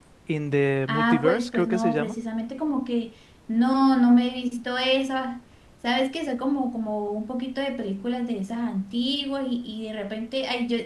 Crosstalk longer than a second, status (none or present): present